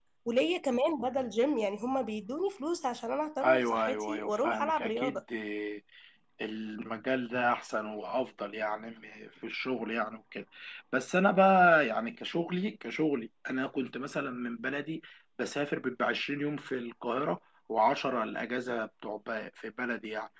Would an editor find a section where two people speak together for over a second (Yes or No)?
Yes